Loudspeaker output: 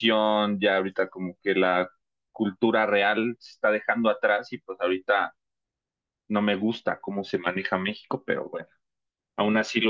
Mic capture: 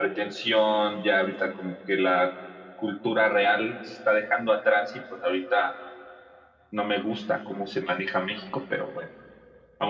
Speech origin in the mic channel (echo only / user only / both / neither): echo only